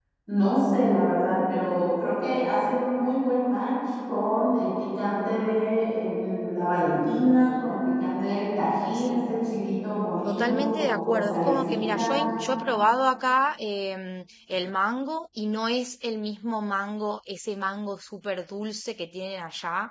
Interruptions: present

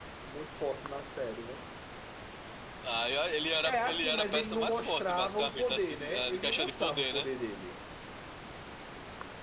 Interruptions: present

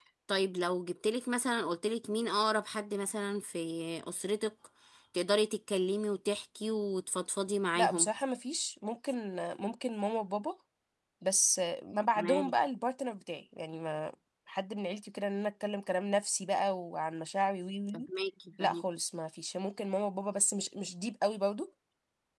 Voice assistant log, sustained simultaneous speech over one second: none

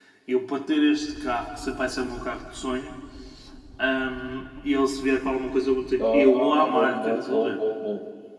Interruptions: present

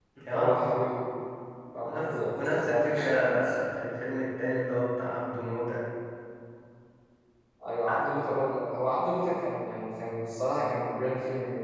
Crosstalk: present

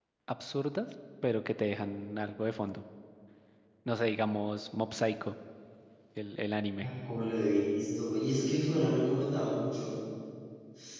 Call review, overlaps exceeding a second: none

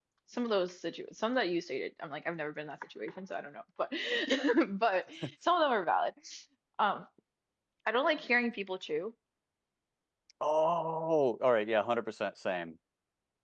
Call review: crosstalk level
none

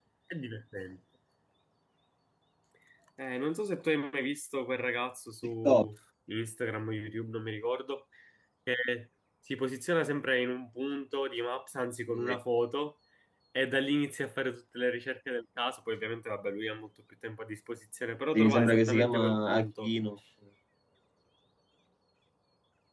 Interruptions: present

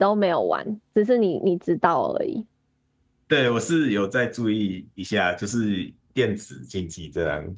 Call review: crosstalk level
none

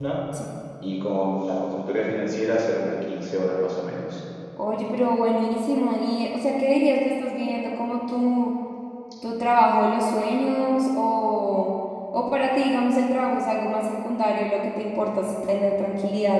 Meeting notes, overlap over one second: none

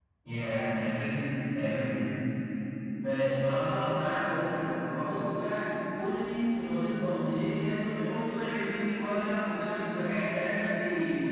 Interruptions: none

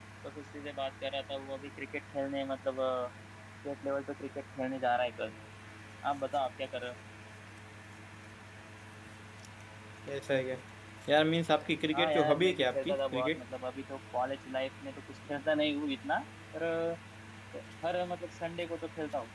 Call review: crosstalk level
present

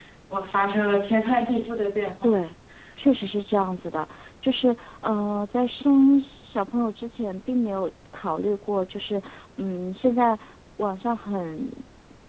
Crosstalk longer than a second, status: none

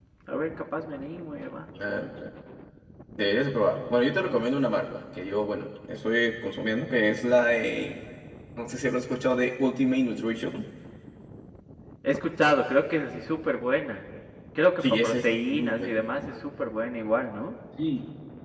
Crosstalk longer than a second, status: present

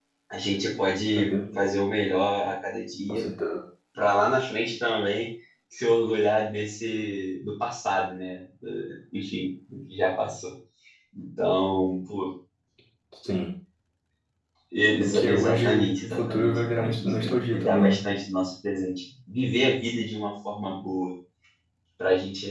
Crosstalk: present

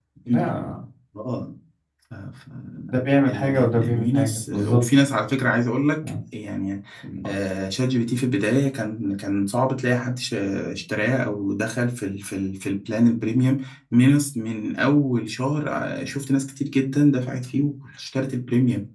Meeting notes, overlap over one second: present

